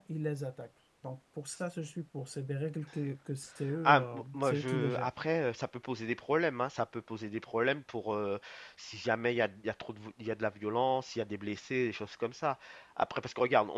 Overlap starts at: 3.8 s

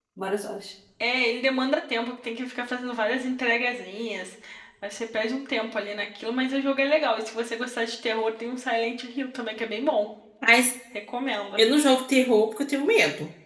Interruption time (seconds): none

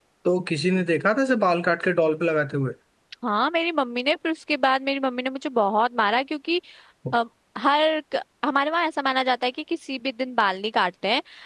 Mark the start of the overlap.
none

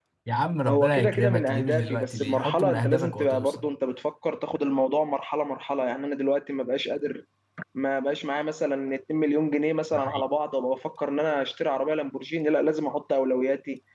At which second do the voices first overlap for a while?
0.7 s

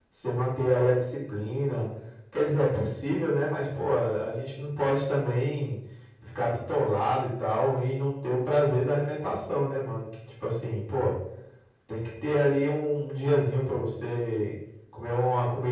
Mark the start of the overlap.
none

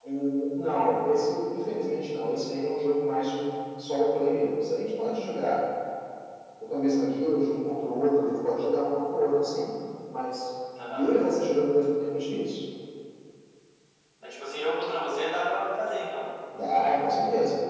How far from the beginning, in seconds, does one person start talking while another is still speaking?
none

